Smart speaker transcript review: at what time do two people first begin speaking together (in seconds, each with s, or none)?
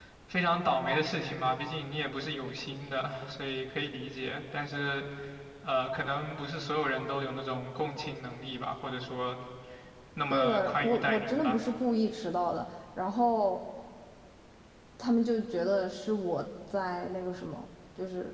10.3 s